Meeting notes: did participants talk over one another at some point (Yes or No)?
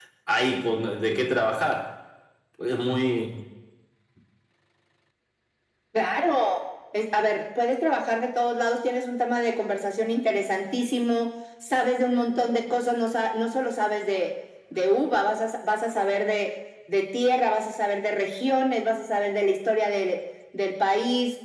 No